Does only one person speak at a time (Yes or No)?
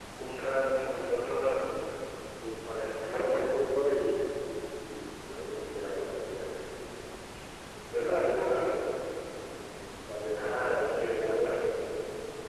No